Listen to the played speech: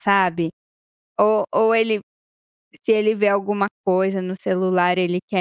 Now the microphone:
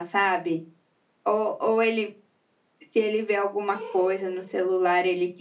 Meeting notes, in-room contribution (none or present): present